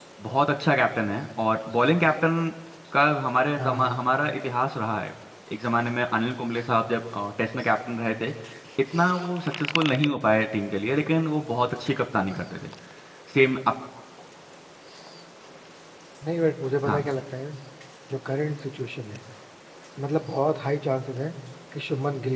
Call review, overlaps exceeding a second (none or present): none